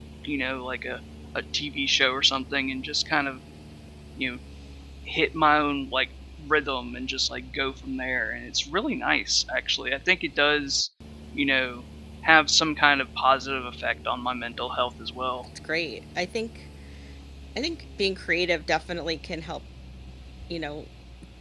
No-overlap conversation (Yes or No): Yes